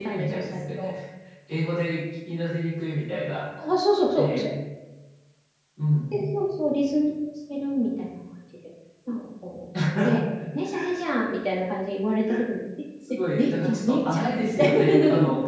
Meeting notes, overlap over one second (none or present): present